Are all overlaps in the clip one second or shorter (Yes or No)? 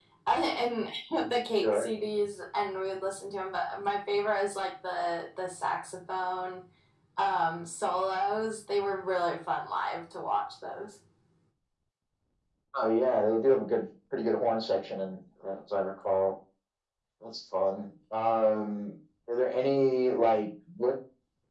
Yes